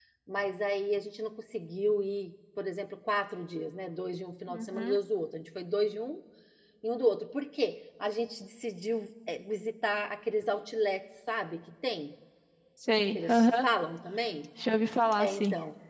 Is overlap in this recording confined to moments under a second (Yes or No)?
Yes